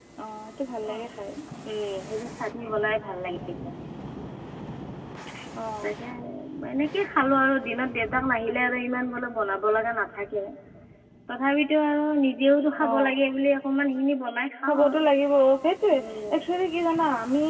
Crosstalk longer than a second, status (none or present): none